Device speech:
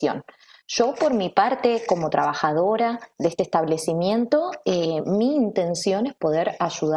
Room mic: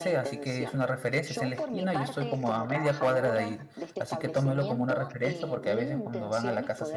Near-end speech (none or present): present